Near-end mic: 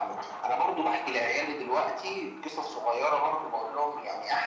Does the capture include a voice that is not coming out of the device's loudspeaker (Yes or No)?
No